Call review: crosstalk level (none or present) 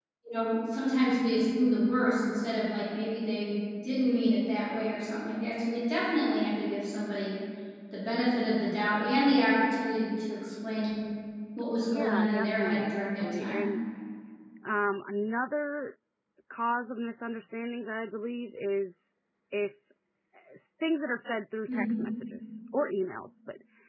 present